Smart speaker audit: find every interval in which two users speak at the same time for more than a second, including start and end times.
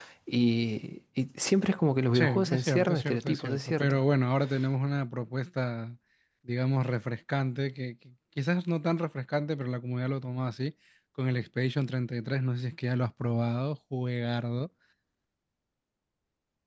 2.1-4.0

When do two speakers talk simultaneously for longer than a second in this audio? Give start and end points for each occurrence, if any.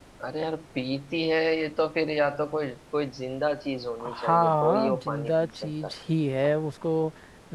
4.0-5.9

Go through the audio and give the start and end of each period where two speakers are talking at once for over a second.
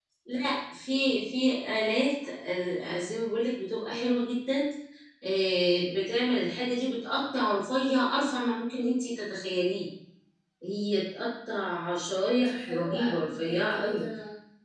12.4-14.0

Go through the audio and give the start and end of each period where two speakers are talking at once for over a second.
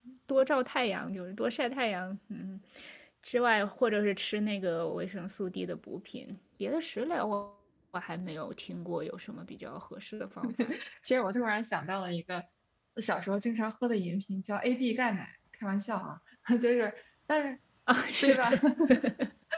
none

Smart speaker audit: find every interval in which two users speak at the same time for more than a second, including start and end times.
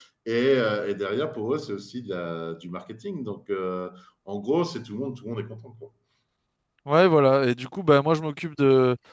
none

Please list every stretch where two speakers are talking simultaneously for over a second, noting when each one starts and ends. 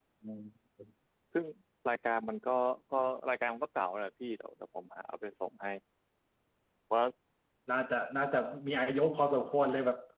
none

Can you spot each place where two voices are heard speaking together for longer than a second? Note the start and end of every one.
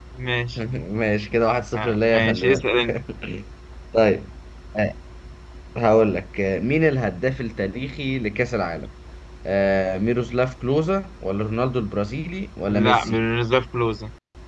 1.7-2.9

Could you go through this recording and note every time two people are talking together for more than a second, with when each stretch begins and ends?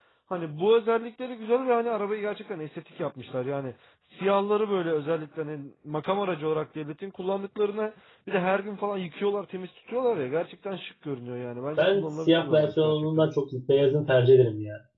11.8-13.3

